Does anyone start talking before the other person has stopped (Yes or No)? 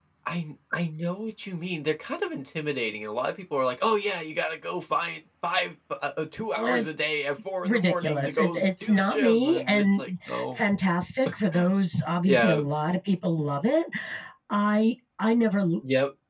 Yes